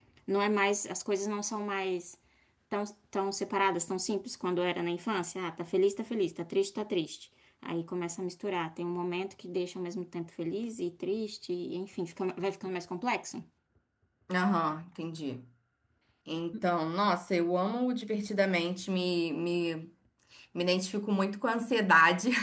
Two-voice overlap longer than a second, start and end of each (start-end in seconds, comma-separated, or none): none